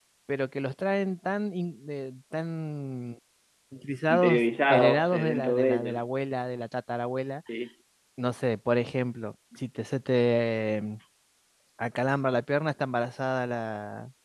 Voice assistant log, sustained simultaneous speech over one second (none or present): present